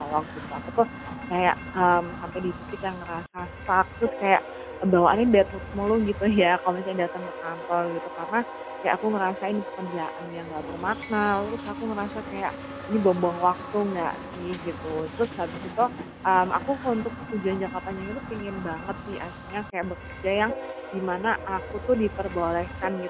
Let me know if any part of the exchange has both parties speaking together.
No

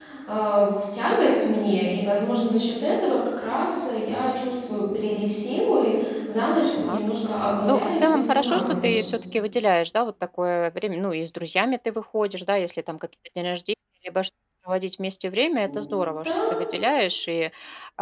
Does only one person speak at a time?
No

